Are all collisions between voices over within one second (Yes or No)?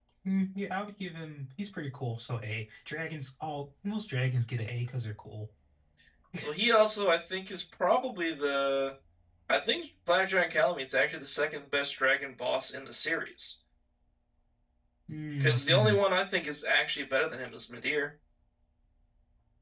Yes